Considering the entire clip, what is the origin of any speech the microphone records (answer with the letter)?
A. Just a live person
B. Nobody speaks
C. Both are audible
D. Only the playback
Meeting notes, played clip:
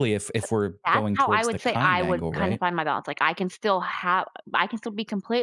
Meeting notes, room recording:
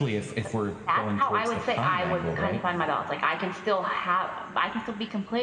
D